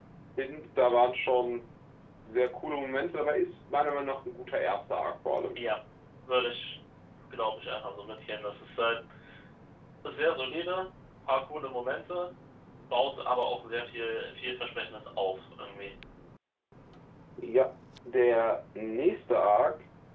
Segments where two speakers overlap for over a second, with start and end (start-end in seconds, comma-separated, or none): none